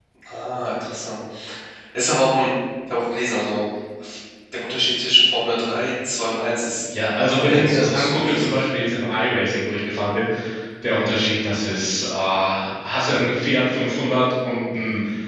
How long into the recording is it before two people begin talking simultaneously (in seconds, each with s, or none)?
7.3 s